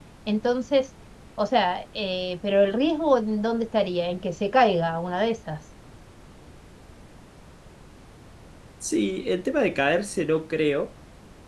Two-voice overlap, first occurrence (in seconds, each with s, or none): none